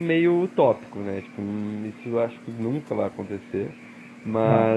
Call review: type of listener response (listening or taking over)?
listening